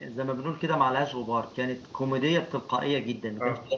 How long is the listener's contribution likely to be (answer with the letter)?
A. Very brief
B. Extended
A